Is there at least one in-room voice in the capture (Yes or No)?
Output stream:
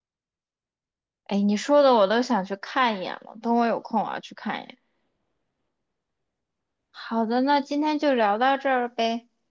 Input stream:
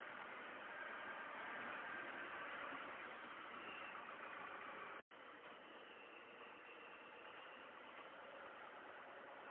No